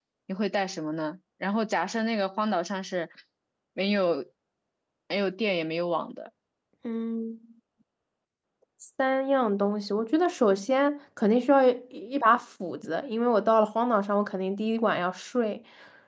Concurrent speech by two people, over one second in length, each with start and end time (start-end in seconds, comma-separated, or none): none